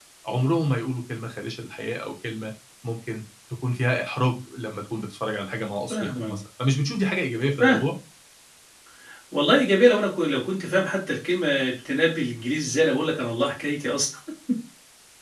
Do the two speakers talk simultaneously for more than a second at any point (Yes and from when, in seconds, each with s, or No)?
No